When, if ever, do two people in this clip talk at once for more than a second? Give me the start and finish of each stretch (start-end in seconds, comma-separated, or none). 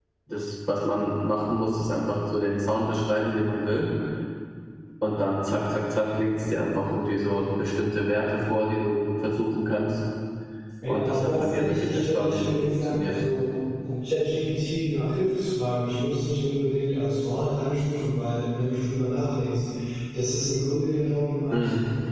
10.9-13.2